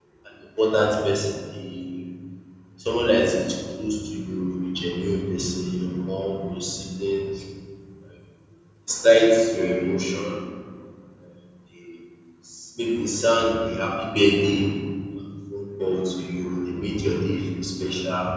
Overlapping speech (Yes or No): No